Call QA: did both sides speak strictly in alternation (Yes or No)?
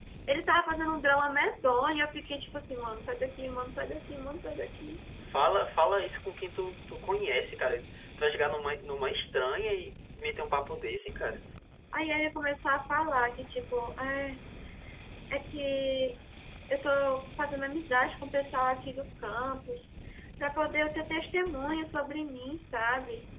Yes